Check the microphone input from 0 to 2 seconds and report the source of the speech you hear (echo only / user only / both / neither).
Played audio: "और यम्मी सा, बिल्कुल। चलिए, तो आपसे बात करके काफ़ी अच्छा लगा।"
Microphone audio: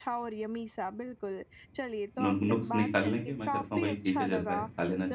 echo only